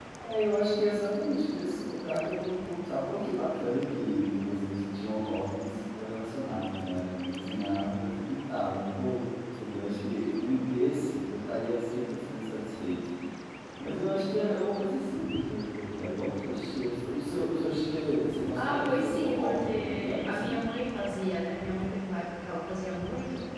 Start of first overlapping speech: 18.6 s

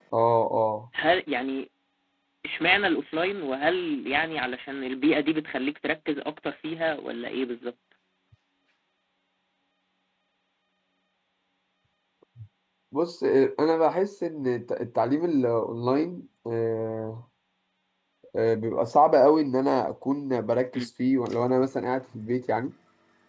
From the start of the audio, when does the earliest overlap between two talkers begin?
none

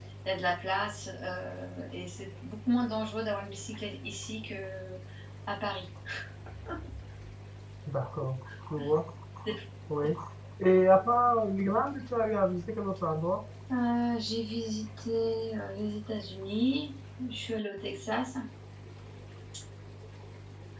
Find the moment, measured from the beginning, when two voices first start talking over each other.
none

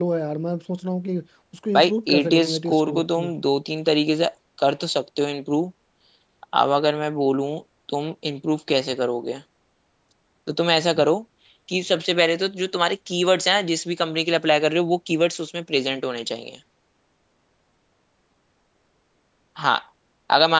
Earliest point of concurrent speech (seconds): 1.8 s

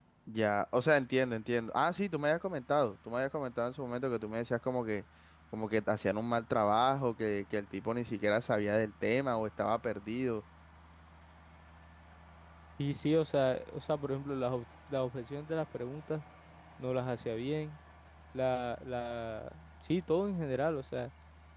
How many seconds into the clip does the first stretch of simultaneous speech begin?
none

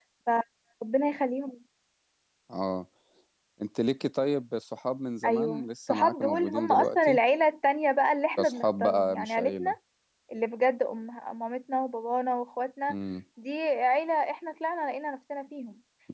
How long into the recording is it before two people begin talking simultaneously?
5.3 s

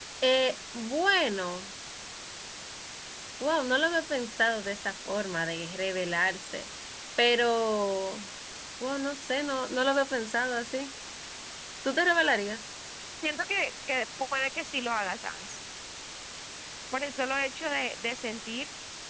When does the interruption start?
none

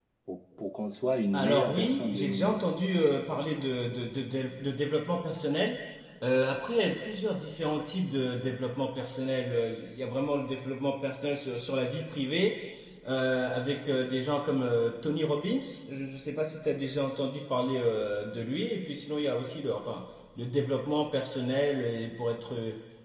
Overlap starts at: 1.3 s

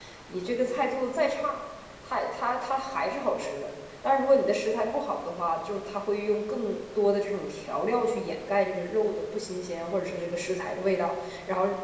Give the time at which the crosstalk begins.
none

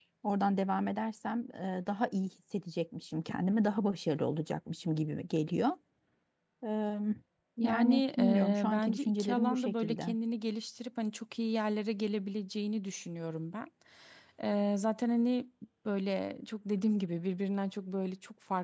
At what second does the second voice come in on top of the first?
7.6 s

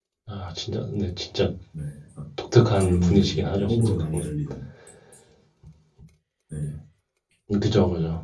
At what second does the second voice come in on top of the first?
2.8 s

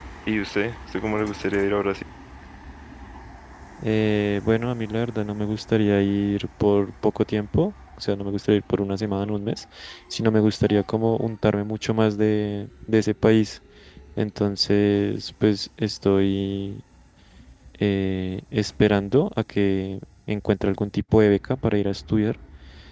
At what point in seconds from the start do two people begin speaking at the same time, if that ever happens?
none

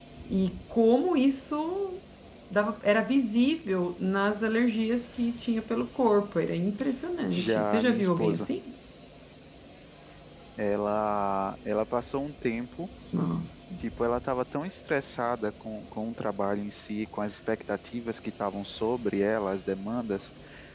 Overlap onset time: 7.3 s

